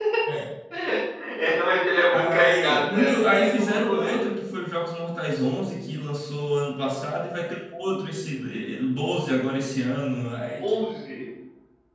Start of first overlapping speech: 2.2 s

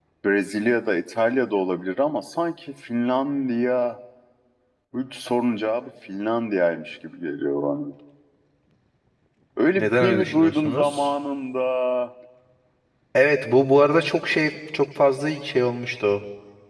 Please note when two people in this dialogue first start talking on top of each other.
9.8 s

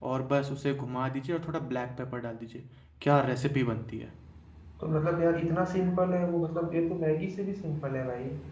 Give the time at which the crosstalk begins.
none

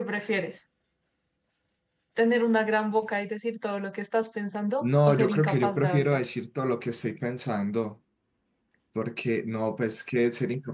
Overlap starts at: 4.8 s

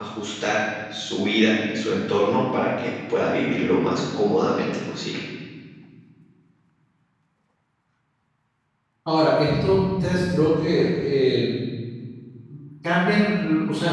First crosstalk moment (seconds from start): none

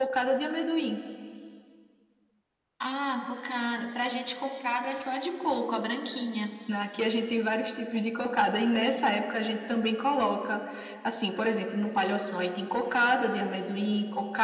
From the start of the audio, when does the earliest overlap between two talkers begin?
none

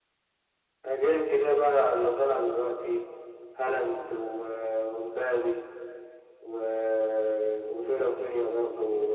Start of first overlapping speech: none

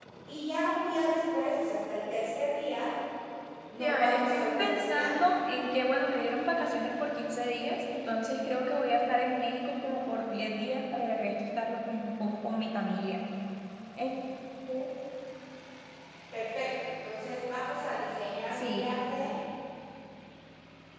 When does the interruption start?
3.8 s

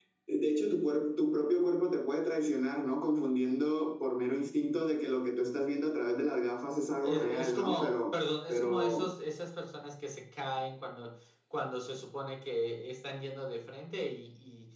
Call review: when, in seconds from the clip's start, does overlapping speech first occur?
7.0 s

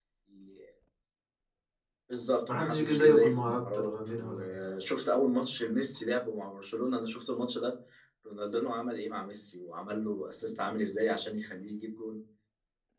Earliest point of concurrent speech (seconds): 2.5 s

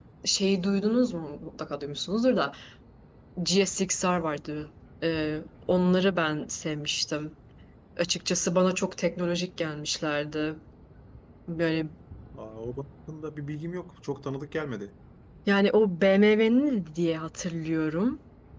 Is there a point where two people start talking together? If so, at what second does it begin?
none

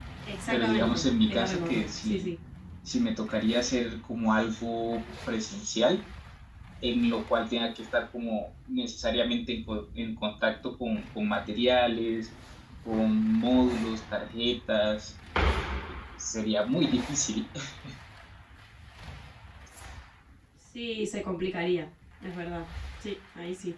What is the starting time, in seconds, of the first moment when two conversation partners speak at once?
0.5 s

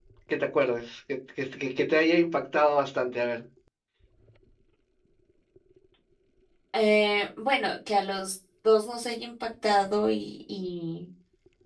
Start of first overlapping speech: none

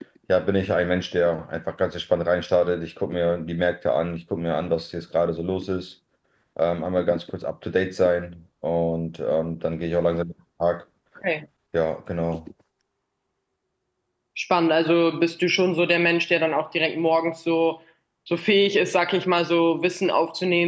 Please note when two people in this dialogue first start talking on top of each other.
none

